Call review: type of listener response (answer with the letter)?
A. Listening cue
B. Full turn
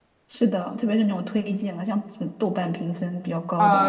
B